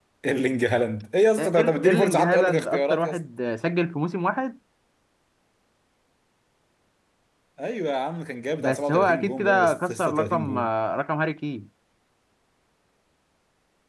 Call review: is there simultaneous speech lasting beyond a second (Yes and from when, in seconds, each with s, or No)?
Yes, from 1.4 s